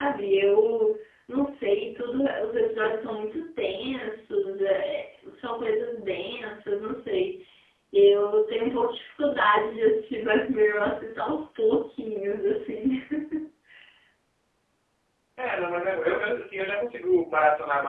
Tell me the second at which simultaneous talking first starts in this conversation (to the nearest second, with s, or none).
none